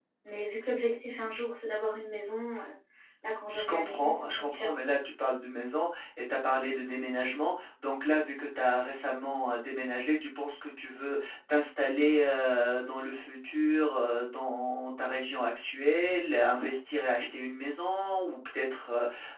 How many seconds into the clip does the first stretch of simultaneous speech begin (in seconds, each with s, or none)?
3.5 s